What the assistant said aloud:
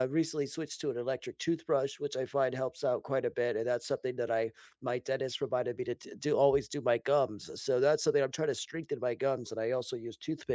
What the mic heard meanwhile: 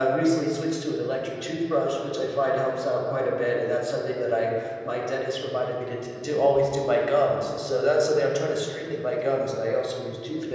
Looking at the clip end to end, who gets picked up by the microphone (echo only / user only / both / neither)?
echo only